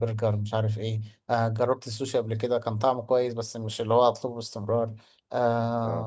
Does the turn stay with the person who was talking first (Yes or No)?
Yes